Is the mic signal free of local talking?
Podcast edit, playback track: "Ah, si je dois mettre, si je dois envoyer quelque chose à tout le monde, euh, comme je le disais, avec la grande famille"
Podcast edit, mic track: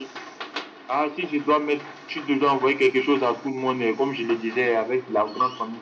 Yes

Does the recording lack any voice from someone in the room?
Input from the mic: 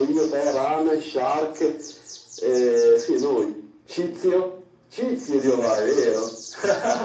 Yes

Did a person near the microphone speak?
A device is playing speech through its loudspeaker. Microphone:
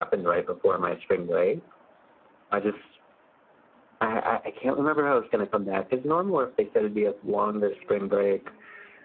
No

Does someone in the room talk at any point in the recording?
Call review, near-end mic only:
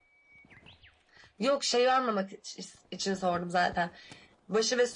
No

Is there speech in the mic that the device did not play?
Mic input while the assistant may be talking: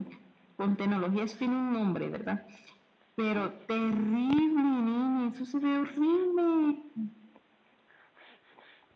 No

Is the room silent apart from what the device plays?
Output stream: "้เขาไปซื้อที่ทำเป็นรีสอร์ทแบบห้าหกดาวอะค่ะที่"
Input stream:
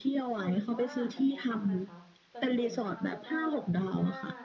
No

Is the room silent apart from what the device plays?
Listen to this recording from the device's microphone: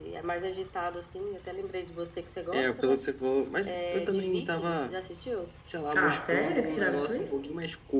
No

